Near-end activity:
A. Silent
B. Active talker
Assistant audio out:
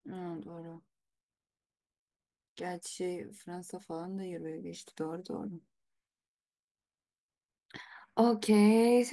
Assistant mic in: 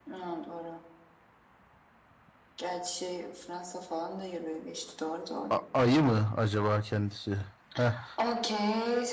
B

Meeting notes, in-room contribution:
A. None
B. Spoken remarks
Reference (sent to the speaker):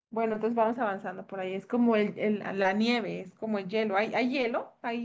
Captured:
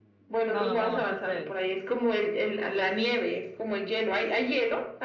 B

